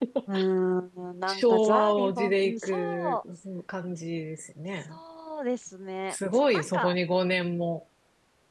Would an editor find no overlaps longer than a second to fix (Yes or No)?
No